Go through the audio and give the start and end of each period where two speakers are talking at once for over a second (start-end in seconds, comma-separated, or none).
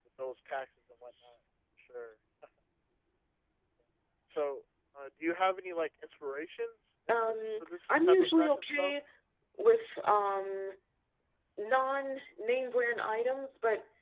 7.3-8.9